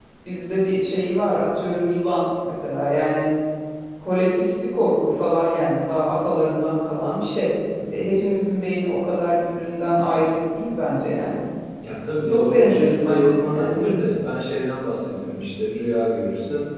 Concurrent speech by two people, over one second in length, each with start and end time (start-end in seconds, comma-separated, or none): 12.2-13.9